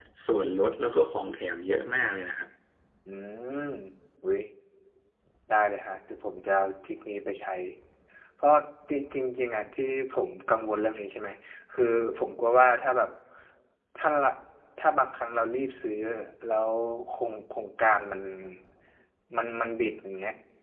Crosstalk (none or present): none